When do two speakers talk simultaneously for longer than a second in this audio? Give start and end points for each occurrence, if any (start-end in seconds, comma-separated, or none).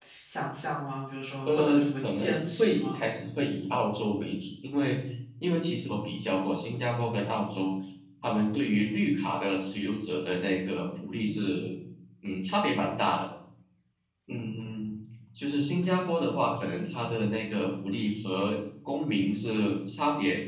1.4-3.0